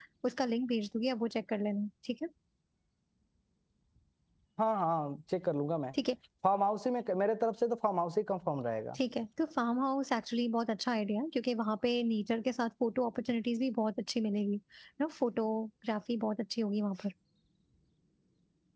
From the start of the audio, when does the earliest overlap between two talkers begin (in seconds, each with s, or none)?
none